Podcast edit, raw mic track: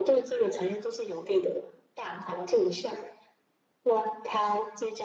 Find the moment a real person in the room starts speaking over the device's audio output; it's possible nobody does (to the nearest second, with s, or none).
none